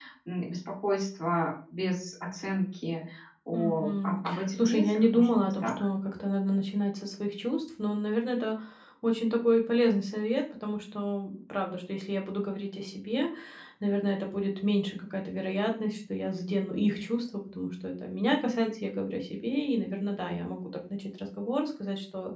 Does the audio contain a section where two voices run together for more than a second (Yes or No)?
Yes